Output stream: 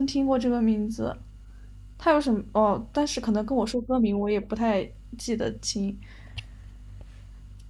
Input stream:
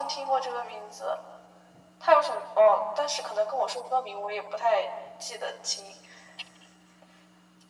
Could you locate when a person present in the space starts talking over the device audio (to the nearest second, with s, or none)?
none